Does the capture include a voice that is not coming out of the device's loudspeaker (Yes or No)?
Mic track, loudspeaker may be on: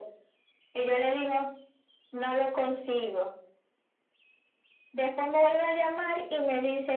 No